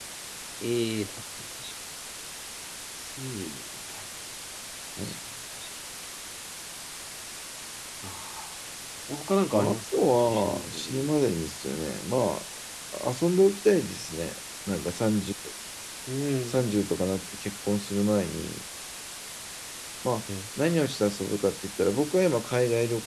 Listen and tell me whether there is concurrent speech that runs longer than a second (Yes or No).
Yes